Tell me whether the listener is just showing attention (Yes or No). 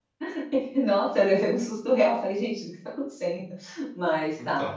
Yes